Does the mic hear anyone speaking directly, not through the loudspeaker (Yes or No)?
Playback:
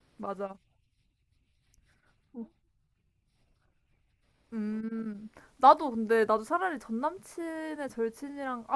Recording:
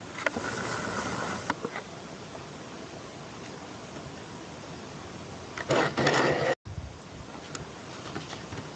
No